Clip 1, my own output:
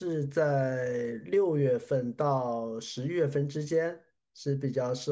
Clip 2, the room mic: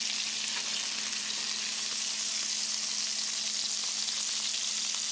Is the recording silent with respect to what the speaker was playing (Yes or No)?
Yes